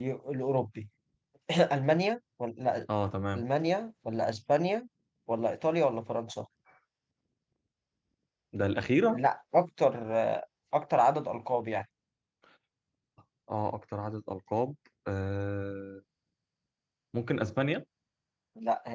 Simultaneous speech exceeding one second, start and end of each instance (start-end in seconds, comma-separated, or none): none